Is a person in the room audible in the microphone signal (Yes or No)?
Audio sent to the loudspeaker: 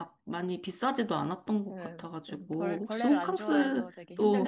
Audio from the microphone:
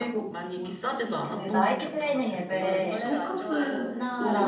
Yes